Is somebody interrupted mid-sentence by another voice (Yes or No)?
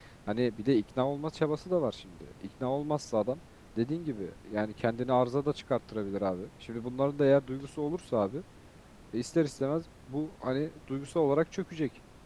No